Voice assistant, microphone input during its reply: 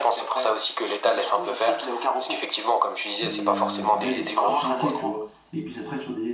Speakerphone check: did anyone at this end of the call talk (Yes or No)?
Yes